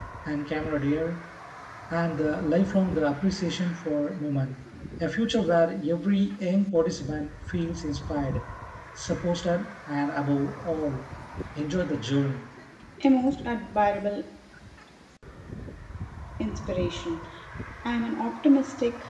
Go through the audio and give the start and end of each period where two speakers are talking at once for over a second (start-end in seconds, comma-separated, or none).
none